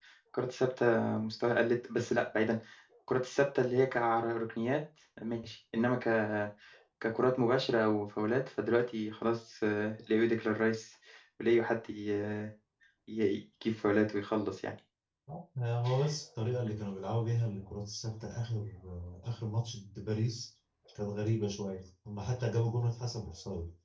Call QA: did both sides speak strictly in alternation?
Yes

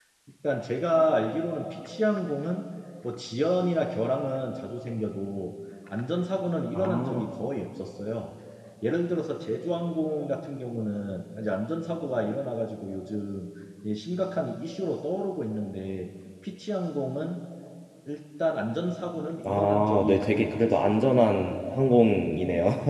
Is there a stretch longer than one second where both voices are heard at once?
Yes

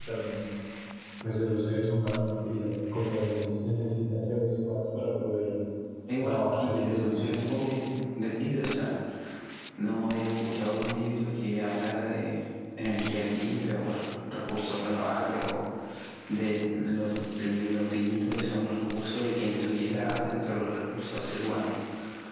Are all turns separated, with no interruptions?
No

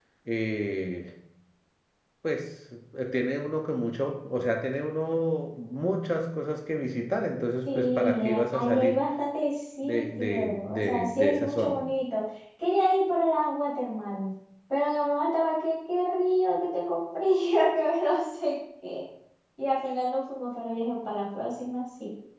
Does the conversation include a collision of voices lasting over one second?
Yes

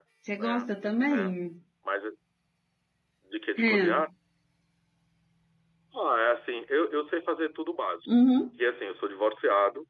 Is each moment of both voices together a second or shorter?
Yes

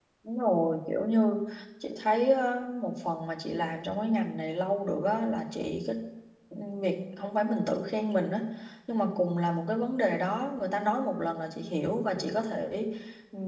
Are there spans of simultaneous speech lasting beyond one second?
No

